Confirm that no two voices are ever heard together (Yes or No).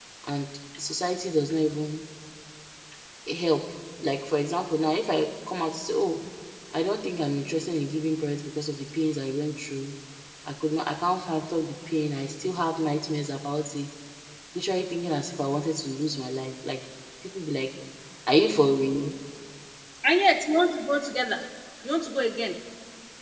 Yes